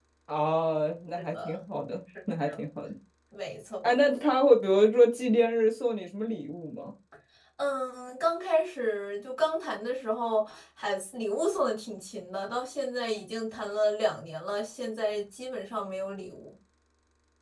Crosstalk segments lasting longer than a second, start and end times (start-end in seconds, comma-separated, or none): none